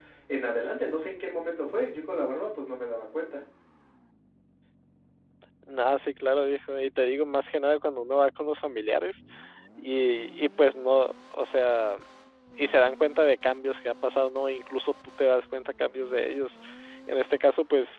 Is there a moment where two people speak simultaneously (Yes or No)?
No